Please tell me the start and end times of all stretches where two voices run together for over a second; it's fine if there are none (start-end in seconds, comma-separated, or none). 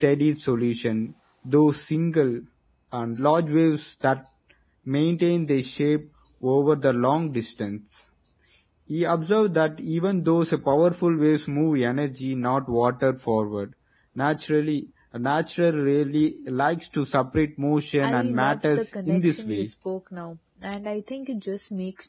18.0-19.7